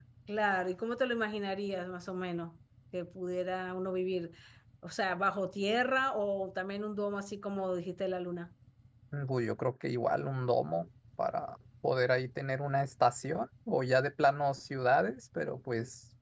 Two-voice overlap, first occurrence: none

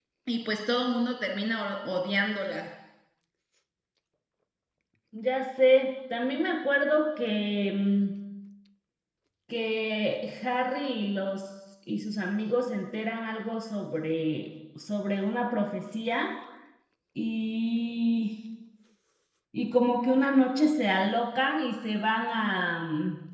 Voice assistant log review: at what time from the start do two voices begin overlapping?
none

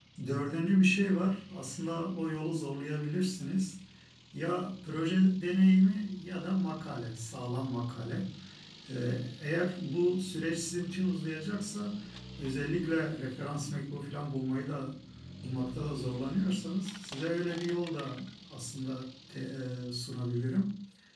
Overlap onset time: none

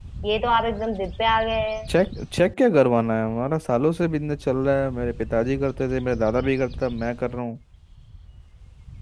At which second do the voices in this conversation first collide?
none

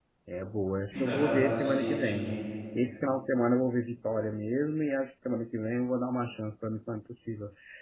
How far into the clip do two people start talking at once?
0.9 s

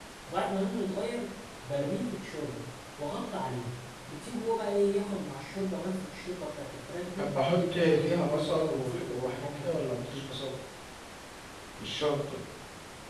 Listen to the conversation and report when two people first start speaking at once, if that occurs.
7.2 s

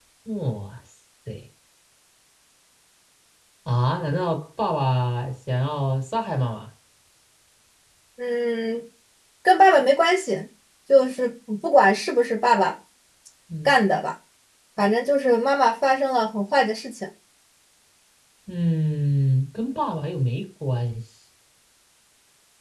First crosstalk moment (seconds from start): none

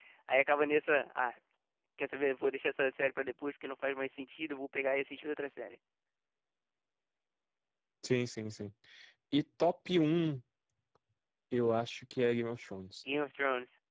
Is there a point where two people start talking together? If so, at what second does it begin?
none

